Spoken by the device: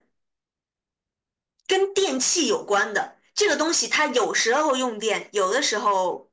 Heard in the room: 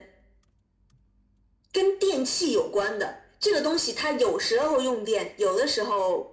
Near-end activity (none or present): none